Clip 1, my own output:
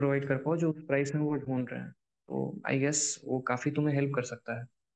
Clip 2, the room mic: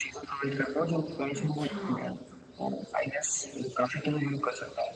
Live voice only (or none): अच्छा